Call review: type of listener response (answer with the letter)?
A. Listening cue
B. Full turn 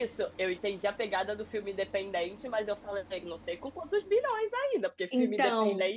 A